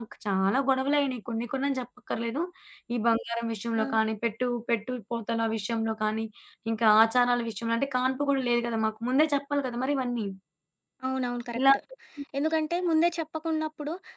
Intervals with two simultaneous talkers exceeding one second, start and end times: none

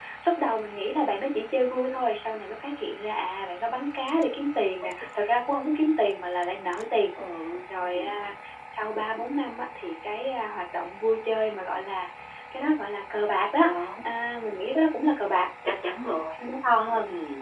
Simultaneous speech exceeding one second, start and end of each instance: none

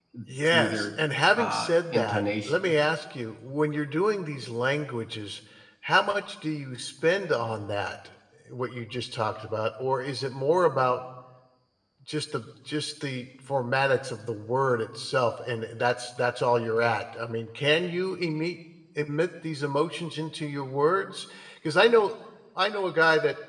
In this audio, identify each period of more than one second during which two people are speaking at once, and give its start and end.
1.3-2.7

